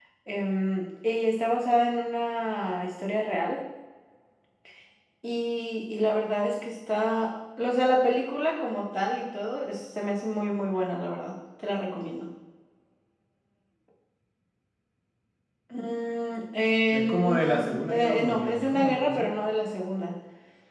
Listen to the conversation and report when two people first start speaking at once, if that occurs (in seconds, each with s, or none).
16.9 s